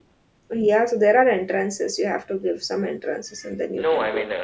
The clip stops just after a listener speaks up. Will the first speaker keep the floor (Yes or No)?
No